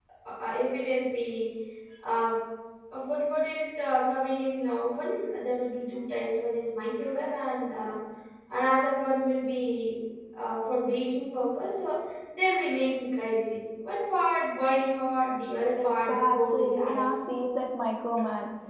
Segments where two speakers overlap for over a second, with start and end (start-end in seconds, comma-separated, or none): 15.8-17.2